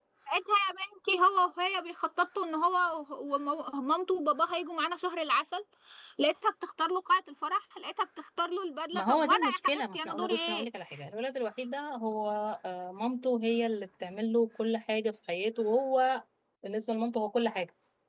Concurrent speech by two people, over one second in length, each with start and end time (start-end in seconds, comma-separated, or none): 8.9-10.7